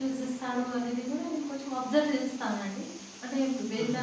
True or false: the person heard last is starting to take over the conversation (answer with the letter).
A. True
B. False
B